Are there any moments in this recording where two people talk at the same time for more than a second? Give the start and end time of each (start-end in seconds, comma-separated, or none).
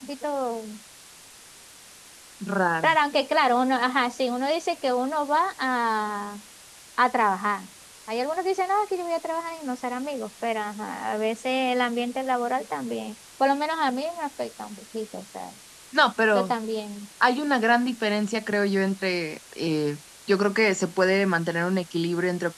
none